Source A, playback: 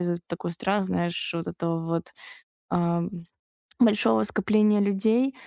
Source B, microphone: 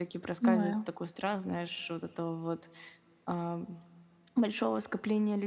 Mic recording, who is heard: both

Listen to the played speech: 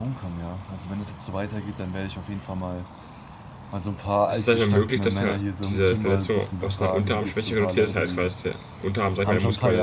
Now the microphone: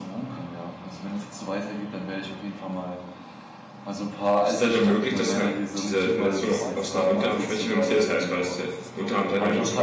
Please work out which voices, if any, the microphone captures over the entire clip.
both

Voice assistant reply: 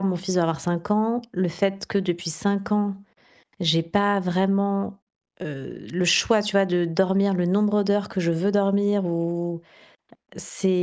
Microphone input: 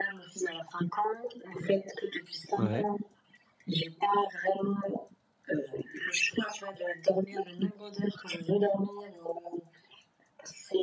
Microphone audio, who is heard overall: both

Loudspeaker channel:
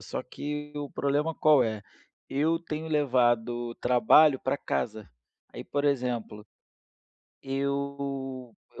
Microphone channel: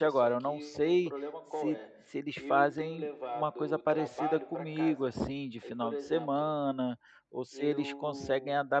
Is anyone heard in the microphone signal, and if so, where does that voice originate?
both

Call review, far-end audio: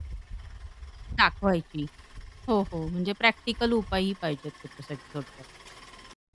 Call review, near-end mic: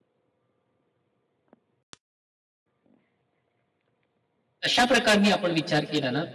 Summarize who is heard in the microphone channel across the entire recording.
user only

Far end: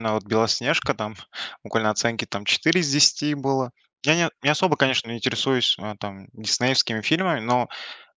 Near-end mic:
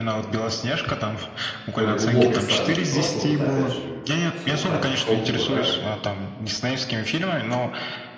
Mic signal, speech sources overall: both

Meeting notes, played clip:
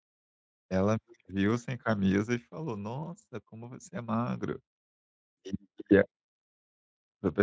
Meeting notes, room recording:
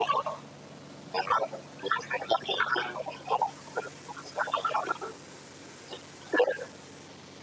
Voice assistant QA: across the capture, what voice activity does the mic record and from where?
echo only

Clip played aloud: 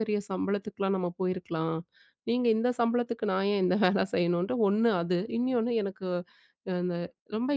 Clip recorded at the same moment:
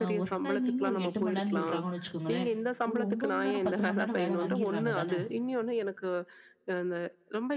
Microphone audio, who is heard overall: both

